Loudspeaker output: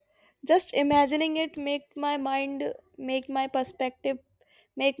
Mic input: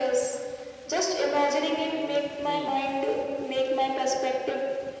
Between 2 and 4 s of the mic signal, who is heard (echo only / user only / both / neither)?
both